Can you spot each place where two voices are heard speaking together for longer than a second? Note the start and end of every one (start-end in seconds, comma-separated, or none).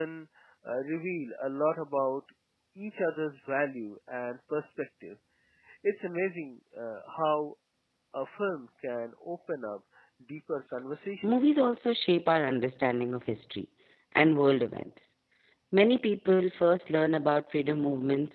none